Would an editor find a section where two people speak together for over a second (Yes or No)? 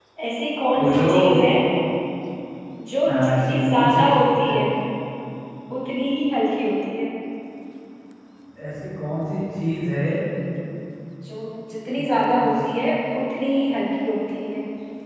Yes